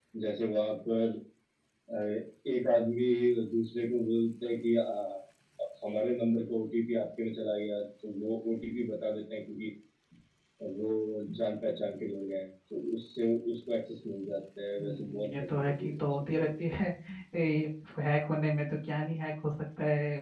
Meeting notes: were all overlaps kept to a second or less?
No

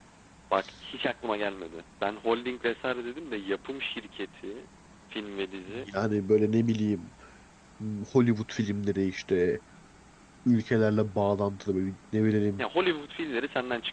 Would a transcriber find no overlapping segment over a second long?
Yes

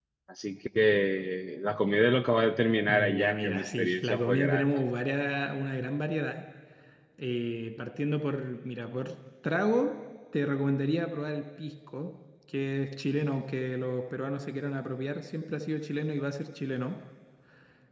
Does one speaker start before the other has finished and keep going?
Yes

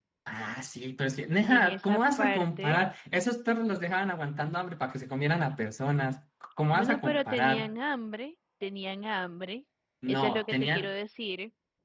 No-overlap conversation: No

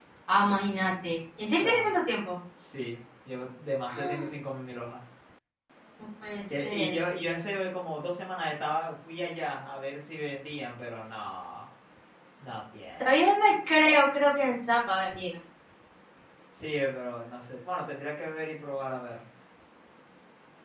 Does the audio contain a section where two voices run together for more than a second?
No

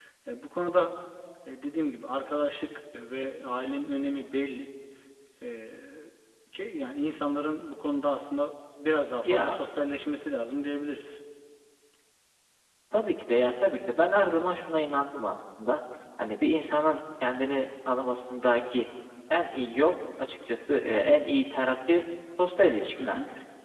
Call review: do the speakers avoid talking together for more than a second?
Yes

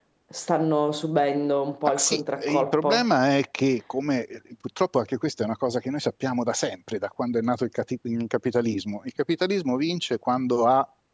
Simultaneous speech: Yes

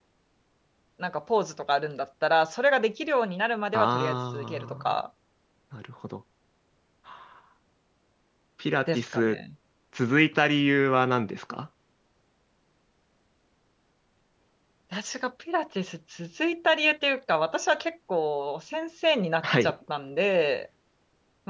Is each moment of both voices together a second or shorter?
No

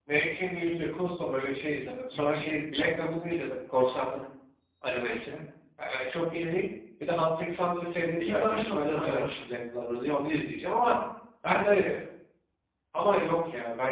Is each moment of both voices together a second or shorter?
No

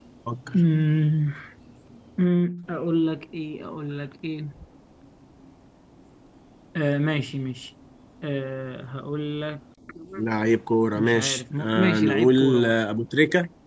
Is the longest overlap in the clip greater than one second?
Yes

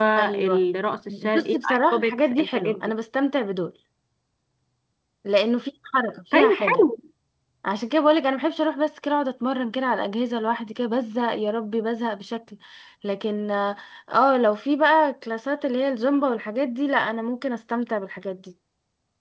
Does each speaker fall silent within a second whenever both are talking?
No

